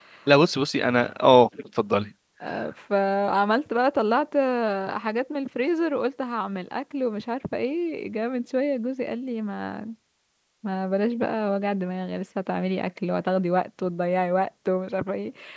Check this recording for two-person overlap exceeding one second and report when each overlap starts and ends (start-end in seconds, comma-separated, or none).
none